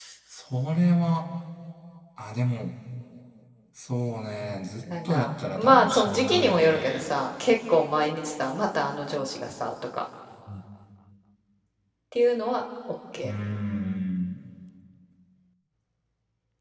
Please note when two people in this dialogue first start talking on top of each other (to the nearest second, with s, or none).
5 s